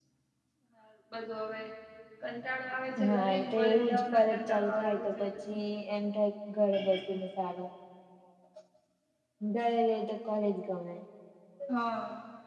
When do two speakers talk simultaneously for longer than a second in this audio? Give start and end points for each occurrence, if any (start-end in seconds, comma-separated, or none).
3.0-5.6